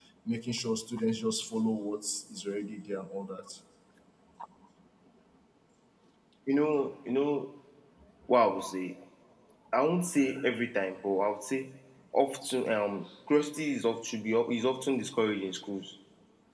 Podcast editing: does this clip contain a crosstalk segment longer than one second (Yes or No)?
No